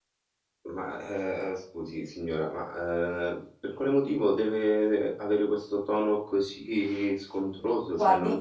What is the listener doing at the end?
taking over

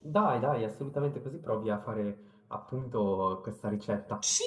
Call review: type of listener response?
taking over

